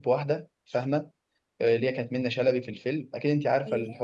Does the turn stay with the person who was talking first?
Yes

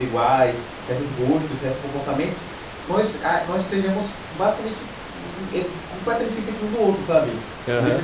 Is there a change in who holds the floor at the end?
Yes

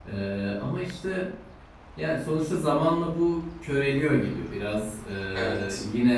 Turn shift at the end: No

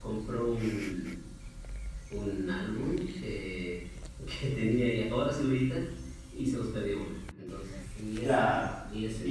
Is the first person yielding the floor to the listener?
Yes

